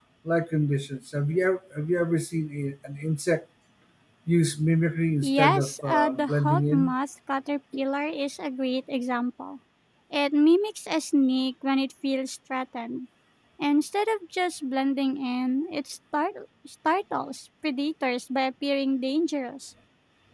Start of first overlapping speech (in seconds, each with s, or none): 5.2 s